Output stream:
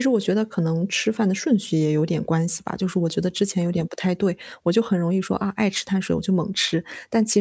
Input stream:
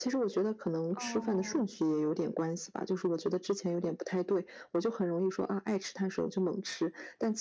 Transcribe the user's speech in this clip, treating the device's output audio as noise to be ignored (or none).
哦，